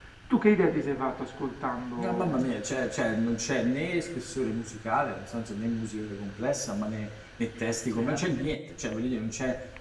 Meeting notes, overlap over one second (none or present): none